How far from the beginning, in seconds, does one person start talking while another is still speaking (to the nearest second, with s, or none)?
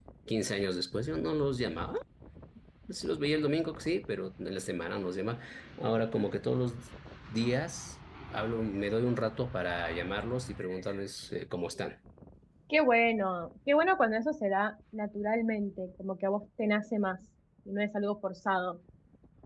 none